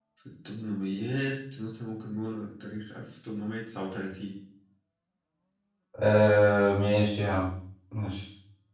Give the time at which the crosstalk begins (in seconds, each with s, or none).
none